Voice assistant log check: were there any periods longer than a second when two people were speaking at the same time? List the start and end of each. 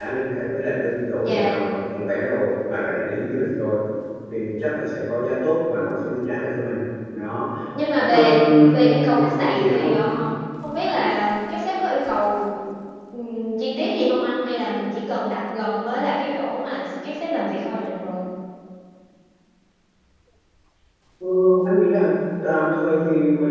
8.1-9.9

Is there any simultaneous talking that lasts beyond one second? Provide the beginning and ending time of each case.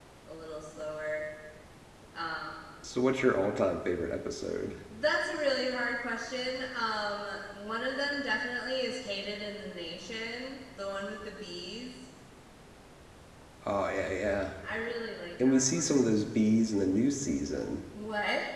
none

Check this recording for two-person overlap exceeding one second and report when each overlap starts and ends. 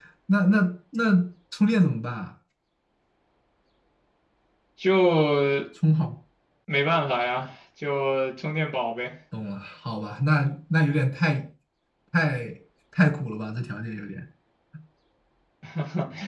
none

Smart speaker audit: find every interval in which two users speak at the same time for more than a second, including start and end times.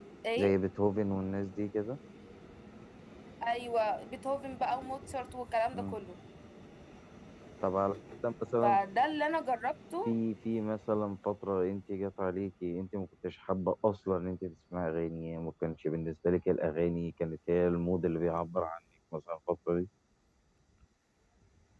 none

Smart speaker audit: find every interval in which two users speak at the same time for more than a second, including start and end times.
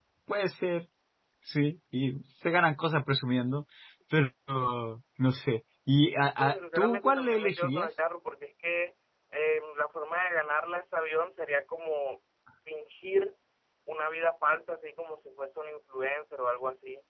6.4-7.9

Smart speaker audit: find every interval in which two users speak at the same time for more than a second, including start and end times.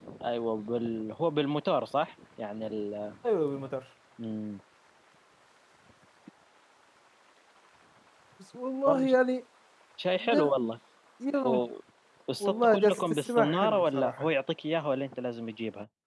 12.4-14.3

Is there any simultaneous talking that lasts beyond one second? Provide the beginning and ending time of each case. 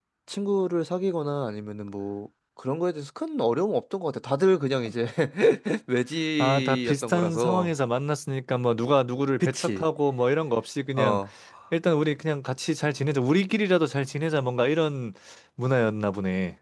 6.4-7.7

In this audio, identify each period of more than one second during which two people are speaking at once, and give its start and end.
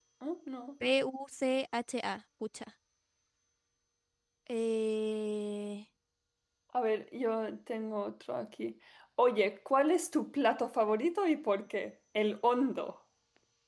none

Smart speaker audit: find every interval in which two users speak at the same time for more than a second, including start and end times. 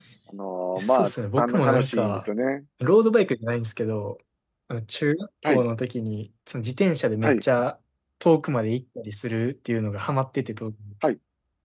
0.8-2.2

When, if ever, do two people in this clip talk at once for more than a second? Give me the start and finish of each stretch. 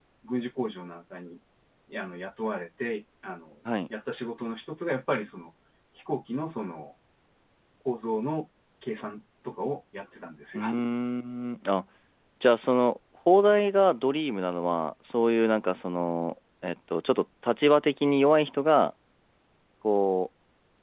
none

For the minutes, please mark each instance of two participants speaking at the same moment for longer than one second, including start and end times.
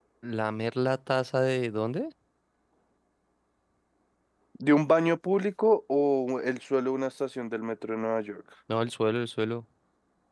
none

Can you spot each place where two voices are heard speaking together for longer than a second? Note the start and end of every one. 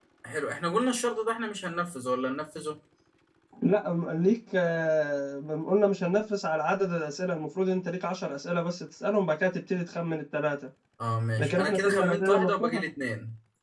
11.4-12.8

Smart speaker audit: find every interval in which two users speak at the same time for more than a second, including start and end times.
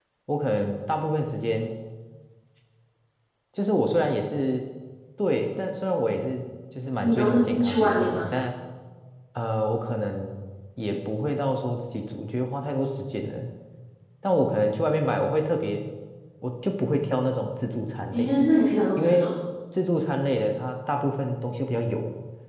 7.0-8.2

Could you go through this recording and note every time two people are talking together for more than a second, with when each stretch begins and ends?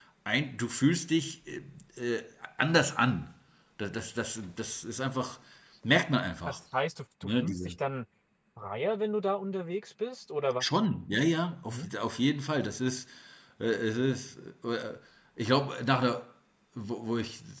none

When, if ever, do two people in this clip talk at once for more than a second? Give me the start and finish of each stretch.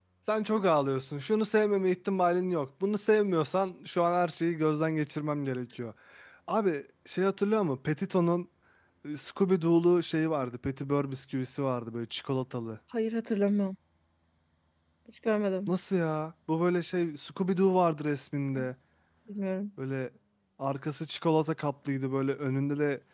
none

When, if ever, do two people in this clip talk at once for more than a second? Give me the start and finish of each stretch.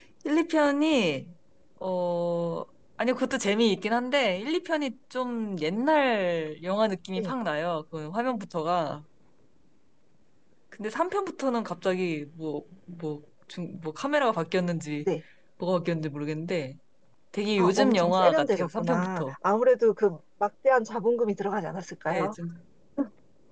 17.6-19.3

